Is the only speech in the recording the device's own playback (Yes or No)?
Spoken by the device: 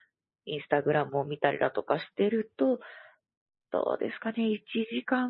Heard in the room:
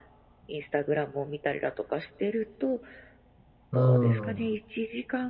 No